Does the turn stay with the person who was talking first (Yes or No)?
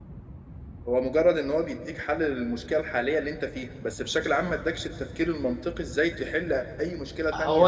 No